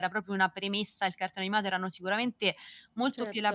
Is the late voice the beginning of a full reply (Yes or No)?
No